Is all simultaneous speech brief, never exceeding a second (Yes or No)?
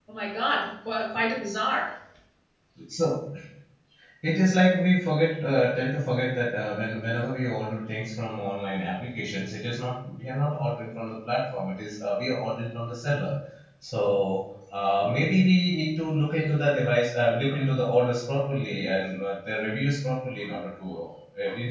Yes